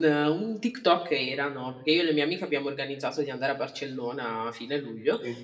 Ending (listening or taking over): listening